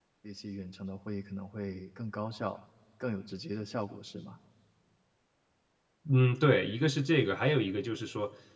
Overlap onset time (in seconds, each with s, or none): none